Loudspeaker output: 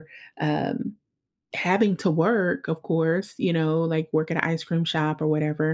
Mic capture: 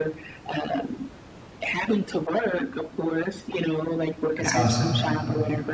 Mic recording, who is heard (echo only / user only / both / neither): both